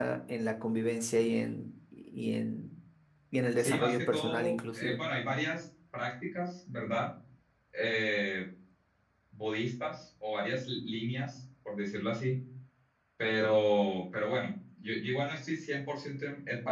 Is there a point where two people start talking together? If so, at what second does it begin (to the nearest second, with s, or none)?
4 s